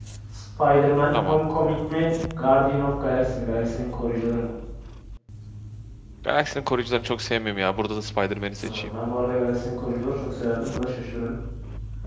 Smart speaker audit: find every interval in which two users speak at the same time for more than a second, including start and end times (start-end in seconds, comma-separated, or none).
none